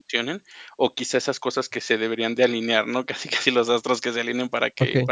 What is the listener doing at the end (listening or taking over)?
listening